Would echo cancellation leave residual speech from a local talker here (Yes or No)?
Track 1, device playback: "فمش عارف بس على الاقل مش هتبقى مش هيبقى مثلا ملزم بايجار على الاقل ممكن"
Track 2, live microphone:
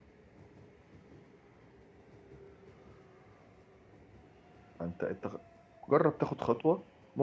Yes